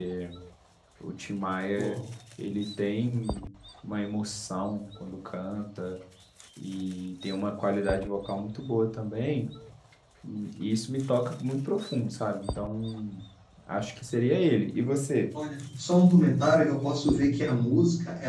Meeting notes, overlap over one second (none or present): none